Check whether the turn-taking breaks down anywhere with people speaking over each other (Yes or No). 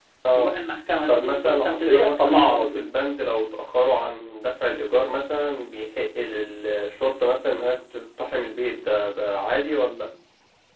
Yes